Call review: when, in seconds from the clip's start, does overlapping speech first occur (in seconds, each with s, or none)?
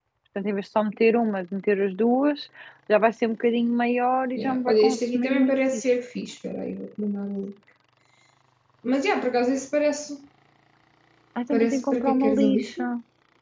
4.4 s